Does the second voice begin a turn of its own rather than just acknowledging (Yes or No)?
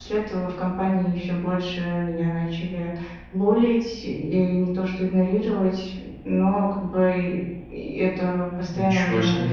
No